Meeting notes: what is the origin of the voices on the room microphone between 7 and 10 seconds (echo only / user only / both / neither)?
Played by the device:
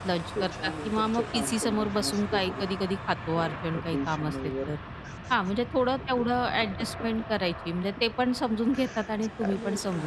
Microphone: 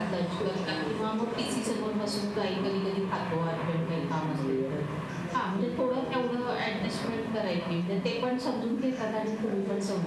both